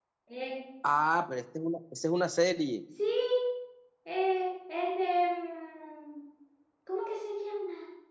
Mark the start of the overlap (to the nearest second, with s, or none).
none